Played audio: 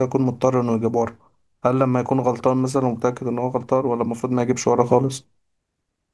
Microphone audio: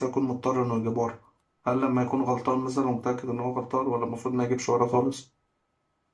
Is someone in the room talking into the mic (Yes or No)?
No